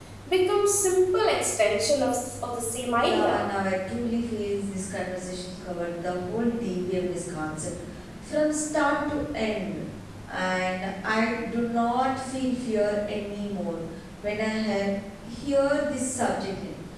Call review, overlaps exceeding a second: none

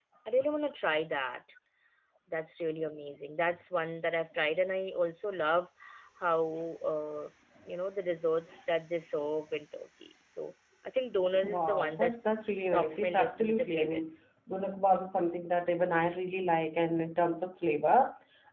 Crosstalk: present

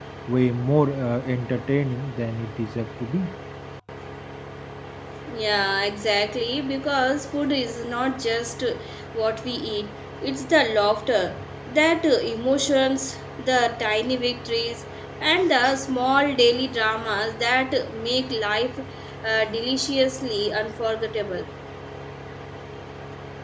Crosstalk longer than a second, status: none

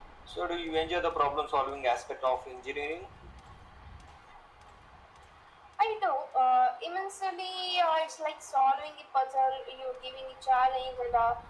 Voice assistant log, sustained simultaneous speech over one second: none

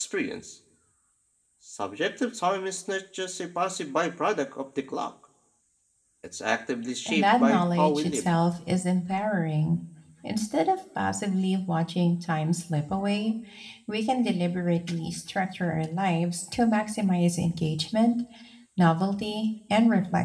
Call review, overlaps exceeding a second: present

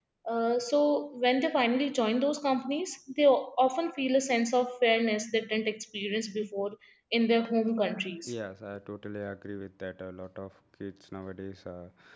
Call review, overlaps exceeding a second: none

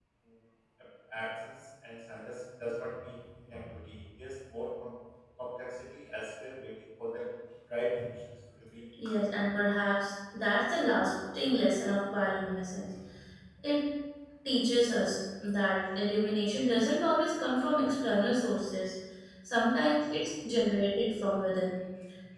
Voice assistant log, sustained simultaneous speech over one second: none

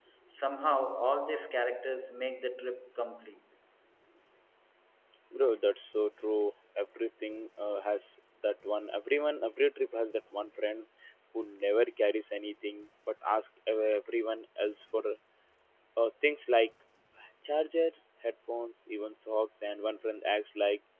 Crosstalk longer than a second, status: none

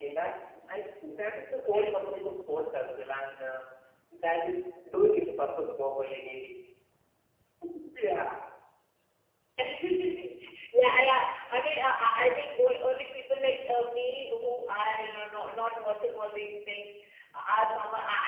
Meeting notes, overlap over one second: none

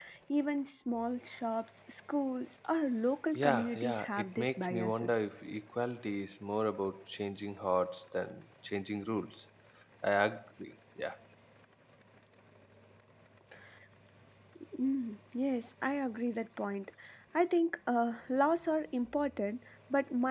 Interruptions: present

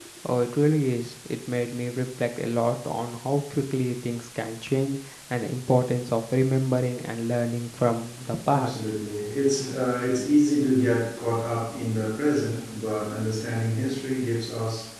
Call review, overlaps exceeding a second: none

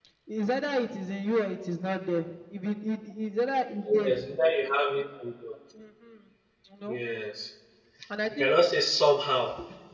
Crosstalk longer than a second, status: none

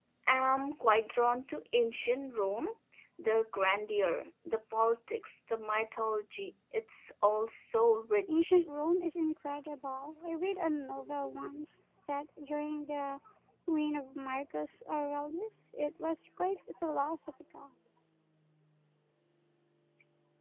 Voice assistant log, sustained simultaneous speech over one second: none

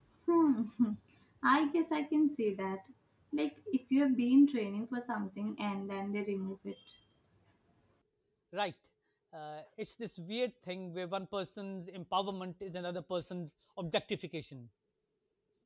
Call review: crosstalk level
none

